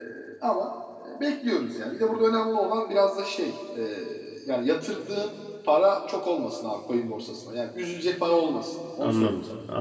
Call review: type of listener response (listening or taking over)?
taking over